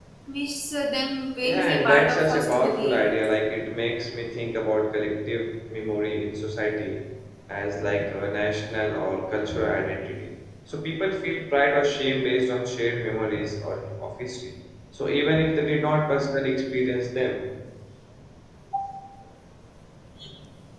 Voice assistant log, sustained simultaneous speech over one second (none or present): present